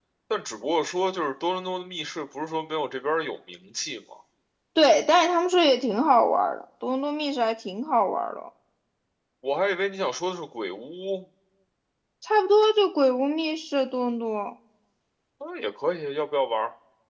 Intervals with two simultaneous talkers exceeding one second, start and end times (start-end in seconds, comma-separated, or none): none